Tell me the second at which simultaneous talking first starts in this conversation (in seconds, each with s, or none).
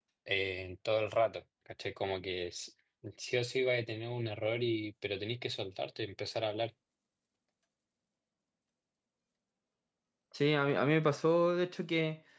none